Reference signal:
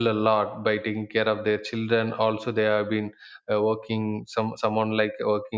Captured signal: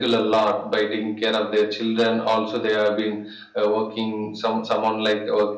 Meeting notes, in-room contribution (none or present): none